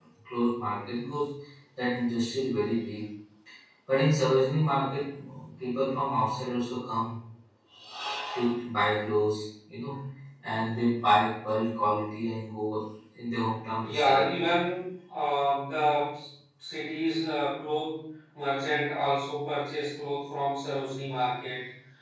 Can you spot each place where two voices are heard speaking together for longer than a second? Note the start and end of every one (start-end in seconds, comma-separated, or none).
none